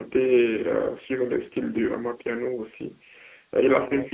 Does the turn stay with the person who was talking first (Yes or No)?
Yes